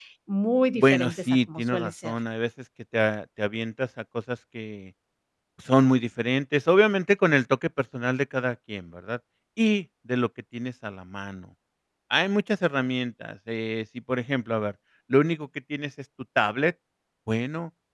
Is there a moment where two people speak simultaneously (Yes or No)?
Yes